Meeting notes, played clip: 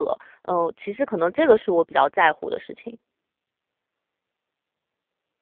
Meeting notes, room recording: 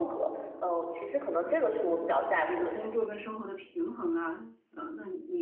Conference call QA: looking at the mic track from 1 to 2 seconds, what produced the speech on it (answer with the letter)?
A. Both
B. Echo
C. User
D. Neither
B